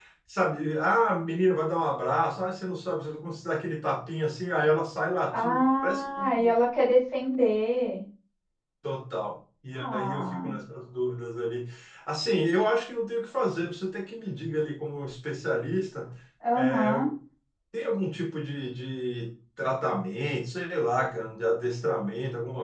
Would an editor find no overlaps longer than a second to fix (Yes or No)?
No